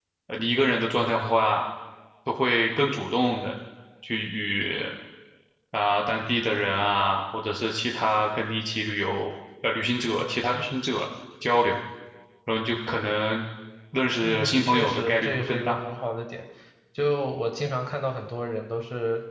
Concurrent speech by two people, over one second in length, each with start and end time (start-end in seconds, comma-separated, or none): 14.2-15.8